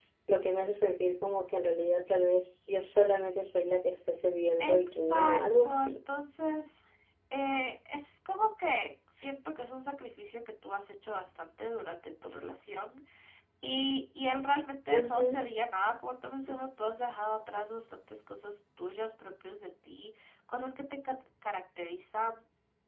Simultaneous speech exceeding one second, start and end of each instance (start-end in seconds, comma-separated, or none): 4.6-6.0